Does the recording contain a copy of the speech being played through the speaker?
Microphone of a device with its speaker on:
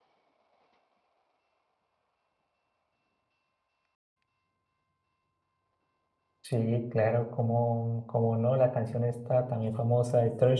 No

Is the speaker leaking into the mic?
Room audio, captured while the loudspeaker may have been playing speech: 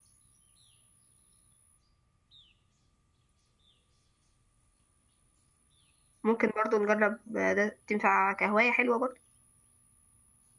No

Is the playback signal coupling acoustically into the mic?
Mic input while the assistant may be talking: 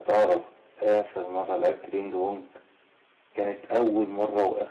Yes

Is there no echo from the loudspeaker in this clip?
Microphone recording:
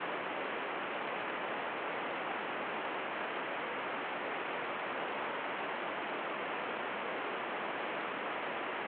Yes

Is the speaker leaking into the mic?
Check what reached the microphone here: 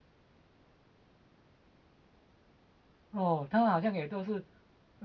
No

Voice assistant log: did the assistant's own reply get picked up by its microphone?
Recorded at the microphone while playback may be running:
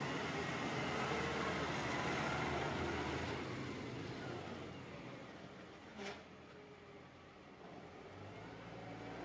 No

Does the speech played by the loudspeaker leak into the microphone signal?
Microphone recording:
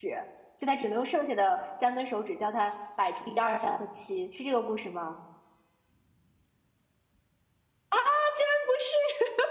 No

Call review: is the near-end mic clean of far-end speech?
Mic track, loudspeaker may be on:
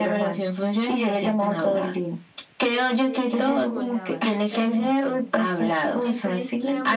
No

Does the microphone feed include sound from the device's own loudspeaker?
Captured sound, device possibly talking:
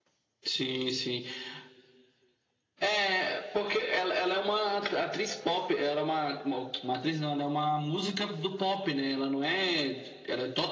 Yes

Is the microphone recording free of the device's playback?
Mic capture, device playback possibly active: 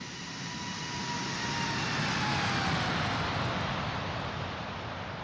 Yes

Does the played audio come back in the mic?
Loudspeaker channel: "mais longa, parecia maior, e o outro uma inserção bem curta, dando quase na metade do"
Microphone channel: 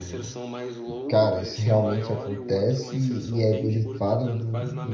Yes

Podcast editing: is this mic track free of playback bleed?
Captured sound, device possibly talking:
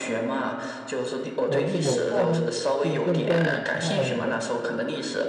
No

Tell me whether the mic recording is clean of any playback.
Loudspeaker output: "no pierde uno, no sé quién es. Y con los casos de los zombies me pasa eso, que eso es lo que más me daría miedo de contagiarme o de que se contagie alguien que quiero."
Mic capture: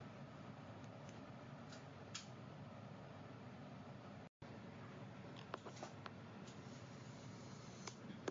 Yes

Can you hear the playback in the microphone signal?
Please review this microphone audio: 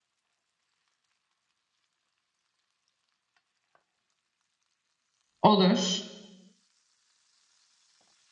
No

